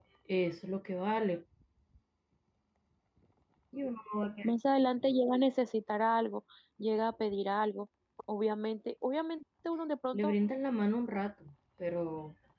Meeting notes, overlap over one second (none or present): none